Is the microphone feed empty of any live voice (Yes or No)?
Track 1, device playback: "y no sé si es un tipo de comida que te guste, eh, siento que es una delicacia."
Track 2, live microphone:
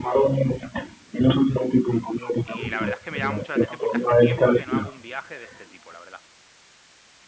No